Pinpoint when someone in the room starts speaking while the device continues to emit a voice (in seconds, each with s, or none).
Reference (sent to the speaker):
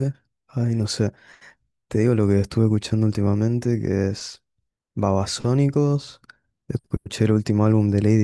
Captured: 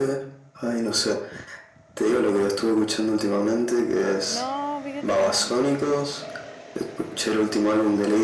4.3 s